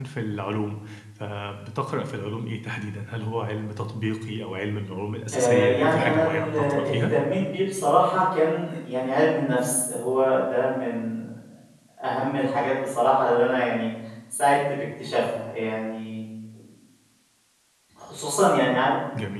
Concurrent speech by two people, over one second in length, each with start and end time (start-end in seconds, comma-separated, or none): 5.3-7.2